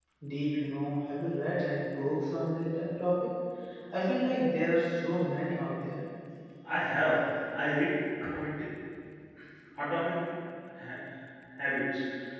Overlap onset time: none

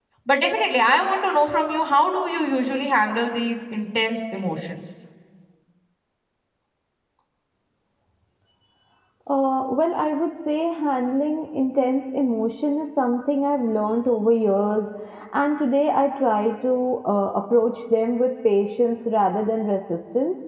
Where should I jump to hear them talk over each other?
none

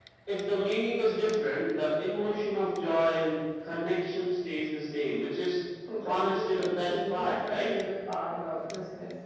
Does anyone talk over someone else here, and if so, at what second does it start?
6 s

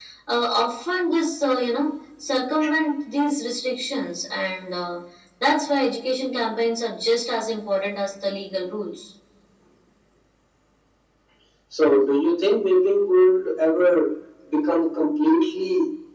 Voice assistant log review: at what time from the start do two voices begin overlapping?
none

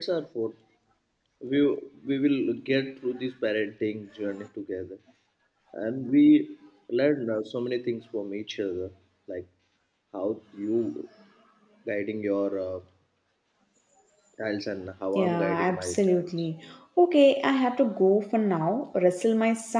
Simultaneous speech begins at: 15 s

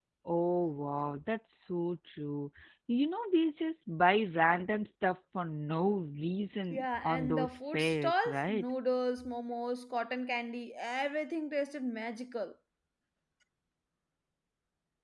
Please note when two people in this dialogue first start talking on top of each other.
7 s

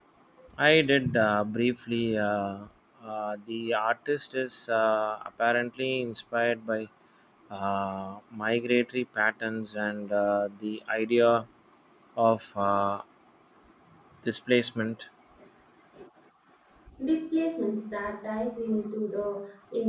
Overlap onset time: none

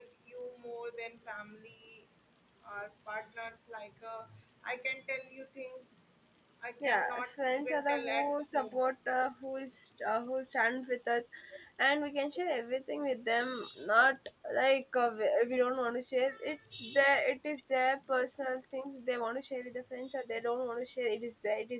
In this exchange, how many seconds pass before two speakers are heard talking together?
7 s

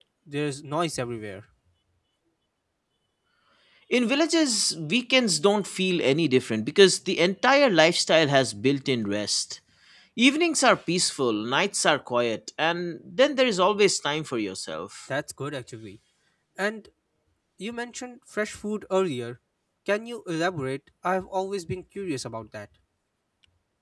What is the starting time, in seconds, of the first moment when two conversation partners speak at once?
none

